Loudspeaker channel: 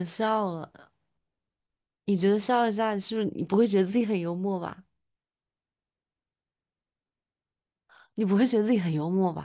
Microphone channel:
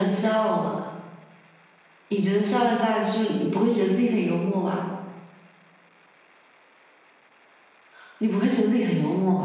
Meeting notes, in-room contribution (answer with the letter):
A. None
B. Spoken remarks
A